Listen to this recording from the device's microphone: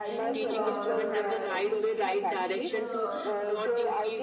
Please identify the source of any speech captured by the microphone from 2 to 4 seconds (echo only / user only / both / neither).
both